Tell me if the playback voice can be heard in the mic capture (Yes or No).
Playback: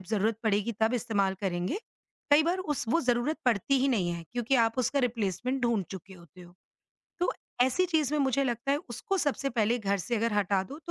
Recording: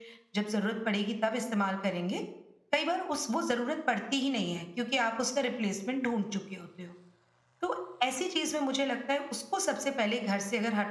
Yes